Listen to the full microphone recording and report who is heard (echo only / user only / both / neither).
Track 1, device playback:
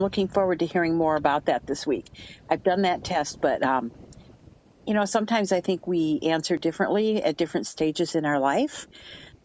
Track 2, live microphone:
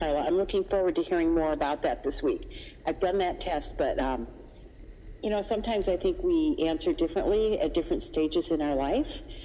echo only